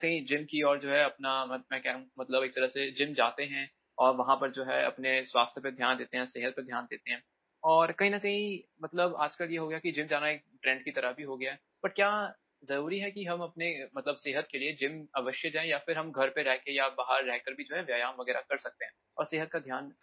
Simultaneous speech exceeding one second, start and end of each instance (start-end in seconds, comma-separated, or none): none